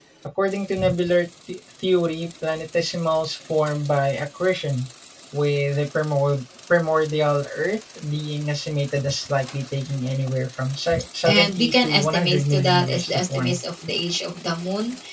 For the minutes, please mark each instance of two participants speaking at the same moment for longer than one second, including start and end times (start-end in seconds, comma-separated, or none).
11.3-13.6